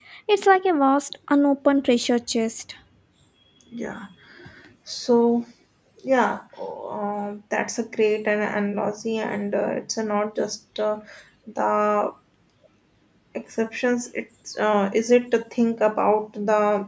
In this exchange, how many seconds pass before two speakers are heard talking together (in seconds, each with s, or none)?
none